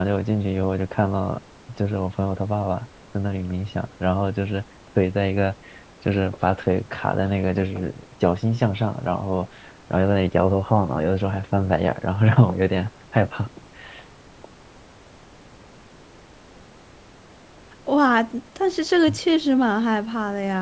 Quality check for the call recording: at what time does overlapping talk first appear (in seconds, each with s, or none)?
none